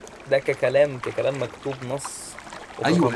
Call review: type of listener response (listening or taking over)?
taking over